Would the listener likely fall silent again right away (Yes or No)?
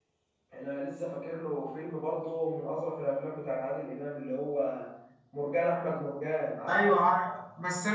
No